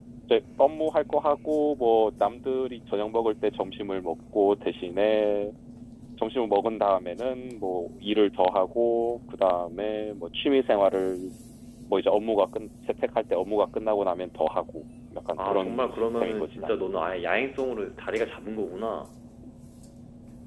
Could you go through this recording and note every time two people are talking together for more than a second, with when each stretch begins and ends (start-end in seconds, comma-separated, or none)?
15.4-16.9